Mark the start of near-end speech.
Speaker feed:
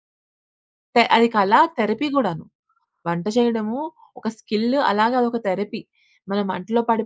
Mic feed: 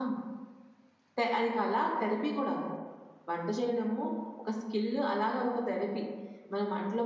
none

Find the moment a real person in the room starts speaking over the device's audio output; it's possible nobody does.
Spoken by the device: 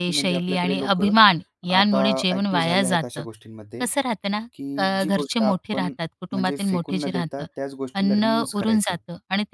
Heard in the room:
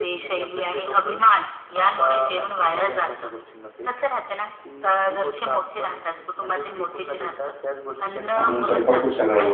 8.4 s

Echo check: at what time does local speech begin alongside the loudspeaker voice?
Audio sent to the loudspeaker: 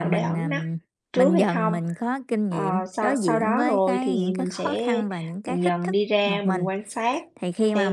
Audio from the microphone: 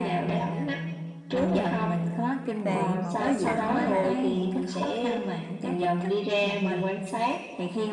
2.6 s

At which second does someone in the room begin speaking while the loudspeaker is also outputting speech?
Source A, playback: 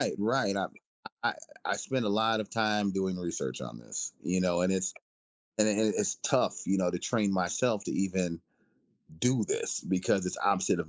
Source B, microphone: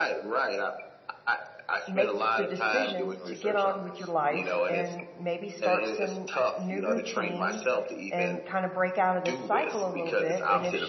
1.9 s

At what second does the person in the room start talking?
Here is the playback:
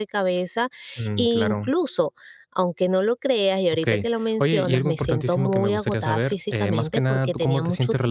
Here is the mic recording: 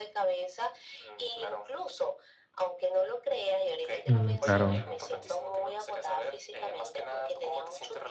4.0 s

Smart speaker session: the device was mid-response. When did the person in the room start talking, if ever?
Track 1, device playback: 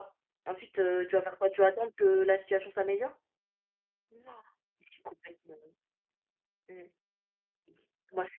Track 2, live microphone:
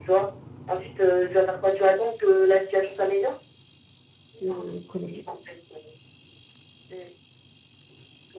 4.4 s

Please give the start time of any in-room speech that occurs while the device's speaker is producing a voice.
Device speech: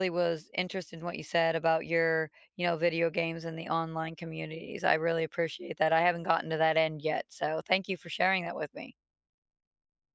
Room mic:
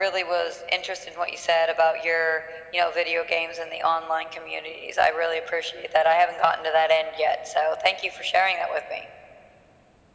none

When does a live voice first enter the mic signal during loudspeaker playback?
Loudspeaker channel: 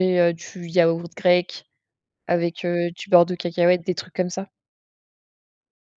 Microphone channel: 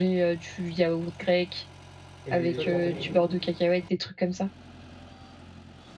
2.2 s

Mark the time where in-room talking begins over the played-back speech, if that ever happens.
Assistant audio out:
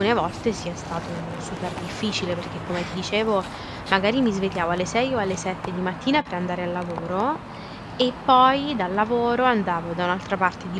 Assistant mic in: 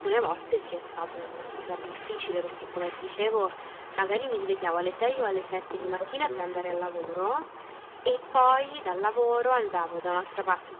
5.7 s

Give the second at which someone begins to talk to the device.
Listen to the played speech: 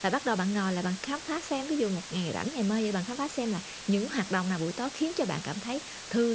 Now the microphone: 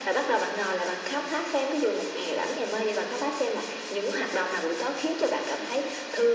none

